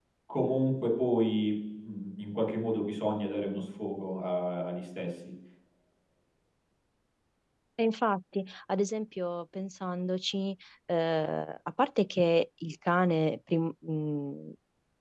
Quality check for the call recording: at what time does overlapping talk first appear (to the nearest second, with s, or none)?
none